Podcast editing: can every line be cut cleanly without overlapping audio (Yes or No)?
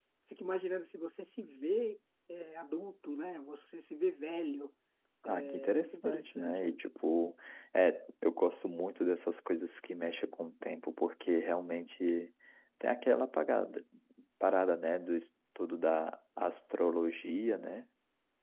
No